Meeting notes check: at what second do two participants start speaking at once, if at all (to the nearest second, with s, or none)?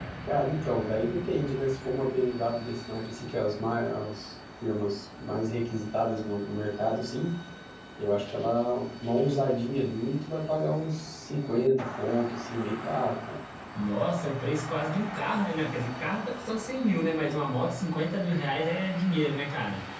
none